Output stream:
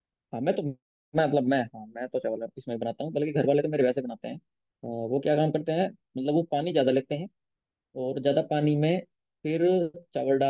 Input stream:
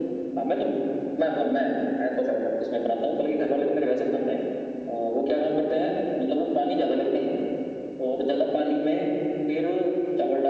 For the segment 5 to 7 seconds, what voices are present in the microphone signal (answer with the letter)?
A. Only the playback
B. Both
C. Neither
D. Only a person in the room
A